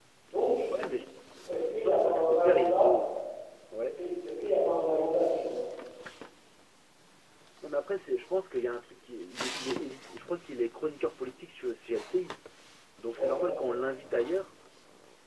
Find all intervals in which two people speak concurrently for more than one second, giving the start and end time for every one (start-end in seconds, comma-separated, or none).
1.7-2.9